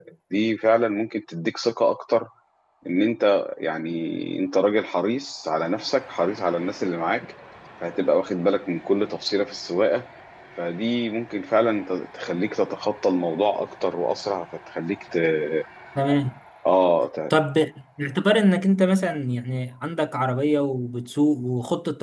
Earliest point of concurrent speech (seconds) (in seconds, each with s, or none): none